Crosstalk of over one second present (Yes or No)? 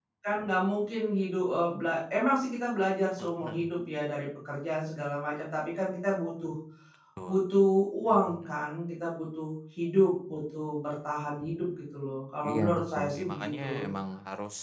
Yes